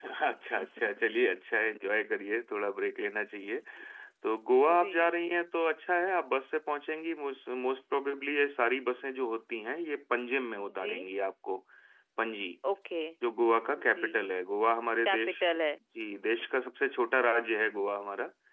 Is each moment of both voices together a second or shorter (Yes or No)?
Yes